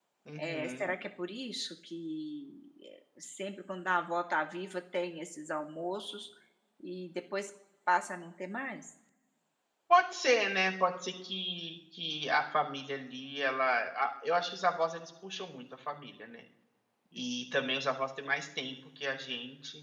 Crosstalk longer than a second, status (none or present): none